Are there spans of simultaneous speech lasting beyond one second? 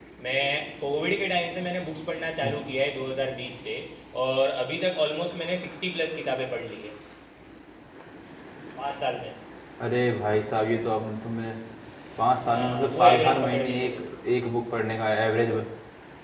Yes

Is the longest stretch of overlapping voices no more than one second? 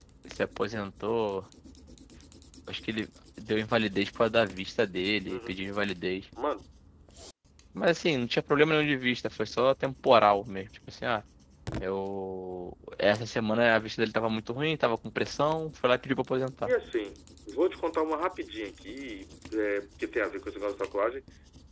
Yes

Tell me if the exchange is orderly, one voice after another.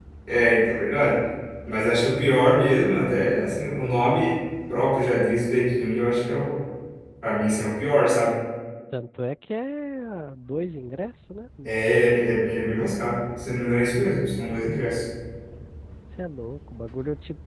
Yes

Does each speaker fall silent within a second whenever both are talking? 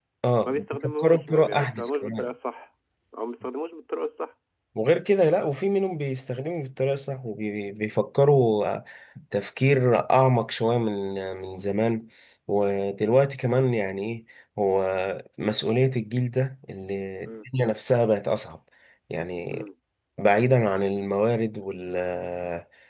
No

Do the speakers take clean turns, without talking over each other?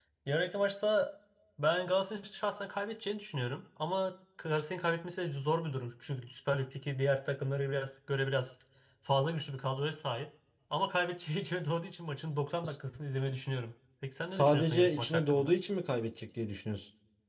No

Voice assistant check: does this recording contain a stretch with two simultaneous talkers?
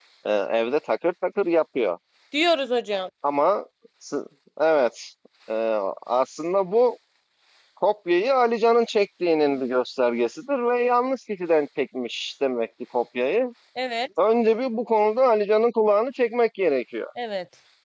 No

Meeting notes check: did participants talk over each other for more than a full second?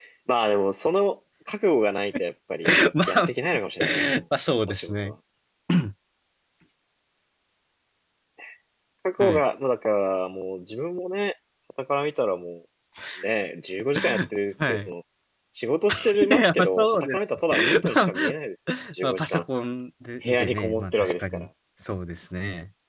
Yes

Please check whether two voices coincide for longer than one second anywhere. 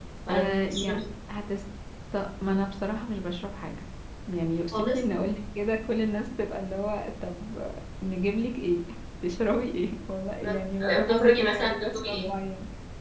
Yes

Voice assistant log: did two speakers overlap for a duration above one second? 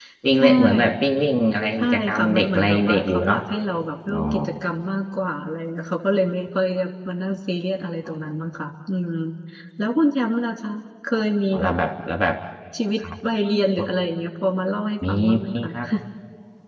Yes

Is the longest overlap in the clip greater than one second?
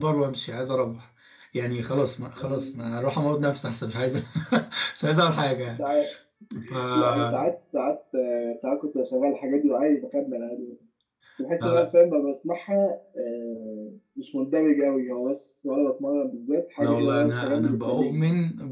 Yes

